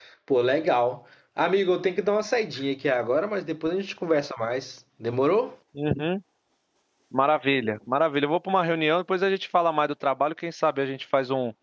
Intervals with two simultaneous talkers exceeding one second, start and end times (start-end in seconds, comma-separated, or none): none